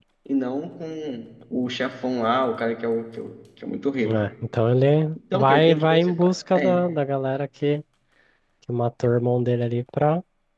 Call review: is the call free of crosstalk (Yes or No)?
No